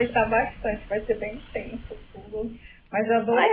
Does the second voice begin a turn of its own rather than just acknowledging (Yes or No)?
No